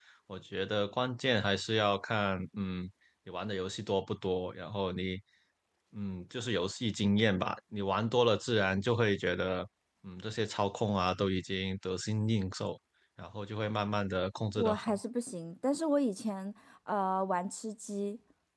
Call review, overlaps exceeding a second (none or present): none